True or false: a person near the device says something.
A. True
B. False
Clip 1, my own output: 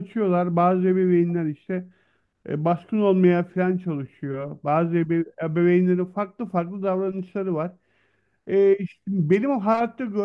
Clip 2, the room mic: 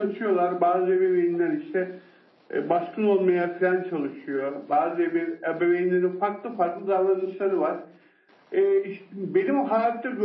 B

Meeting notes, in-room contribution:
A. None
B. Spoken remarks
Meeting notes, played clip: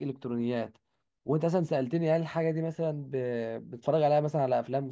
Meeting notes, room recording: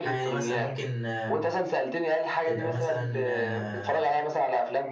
B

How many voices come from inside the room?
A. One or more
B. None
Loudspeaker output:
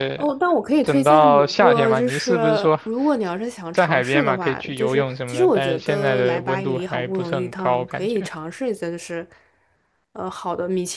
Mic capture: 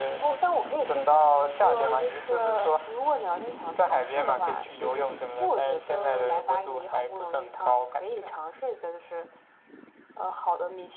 B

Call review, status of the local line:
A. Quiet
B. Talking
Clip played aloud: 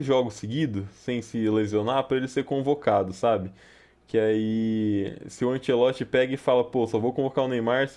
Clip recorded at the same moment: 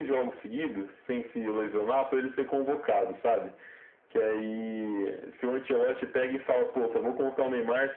A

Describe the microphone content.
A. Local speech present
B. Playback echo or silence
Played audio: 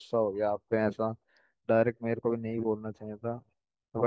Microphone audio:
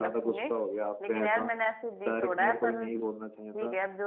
A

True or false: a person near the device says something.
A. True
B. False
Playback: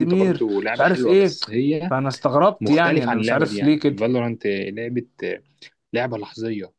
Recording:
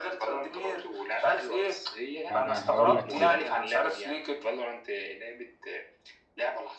A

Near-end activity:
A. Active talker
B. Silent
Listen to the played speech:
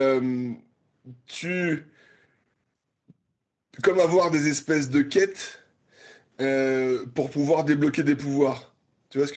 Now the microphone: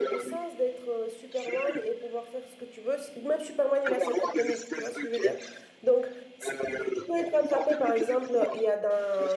A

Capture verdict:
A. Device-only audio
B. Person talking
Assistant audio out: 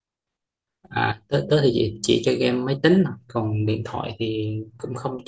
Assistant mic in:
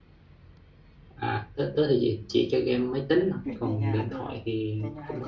B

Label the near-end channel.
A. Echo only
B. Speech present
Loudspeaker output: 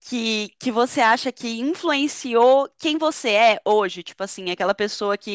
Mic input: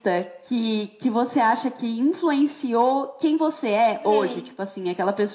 B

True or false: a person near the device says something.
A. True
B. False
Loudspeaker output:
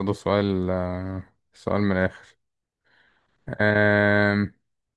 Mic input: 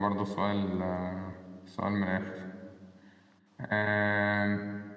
B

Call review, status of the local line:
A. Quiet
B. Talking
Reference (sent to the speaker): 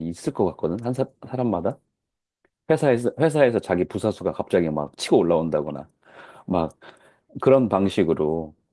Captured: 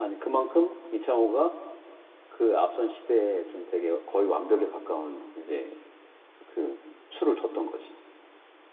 B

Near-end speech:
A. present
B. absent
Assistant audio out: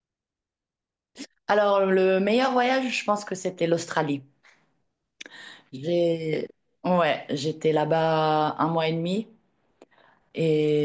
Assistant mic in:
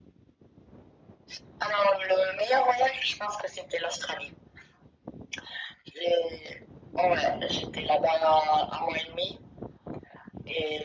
B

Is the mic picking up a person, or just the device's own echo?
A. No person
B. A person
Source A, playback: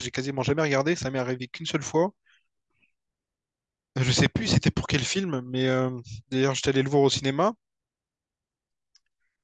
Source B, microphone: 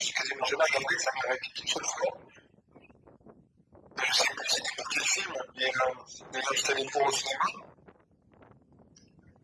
A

